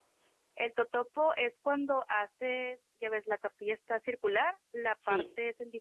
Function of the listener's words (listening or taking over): listening